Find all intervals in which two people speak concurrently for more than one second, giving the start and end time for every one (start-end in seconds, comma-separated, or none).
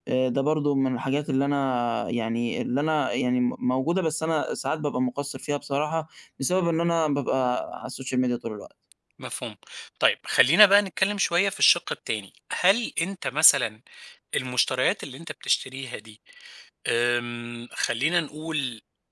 none